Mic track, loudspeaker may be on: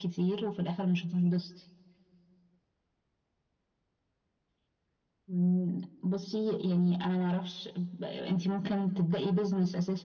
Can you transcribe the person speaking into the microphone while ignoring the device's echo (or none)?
none